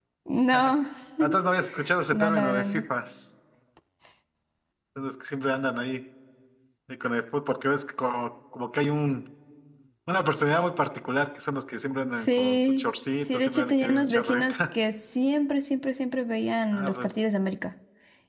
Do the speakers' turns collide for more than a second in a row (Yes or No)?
Yes